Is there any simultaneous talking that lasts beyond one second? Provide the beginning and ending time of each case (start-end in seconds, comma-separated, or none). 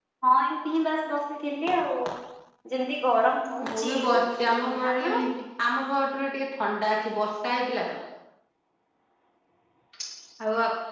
3.6-5.0